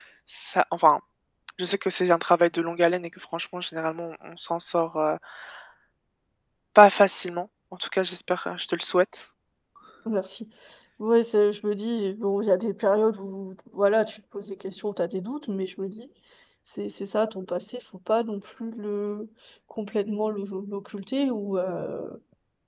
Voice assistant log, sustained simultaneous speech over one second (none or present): none